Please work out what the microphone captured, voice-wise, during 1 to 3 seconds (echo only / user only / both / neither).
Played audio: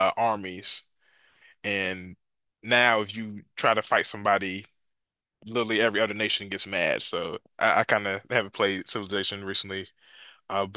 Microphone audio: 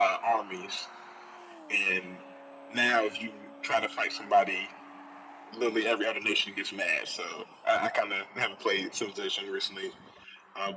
echo only